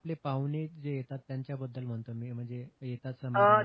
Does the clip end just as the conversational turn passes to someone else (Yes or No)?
Yes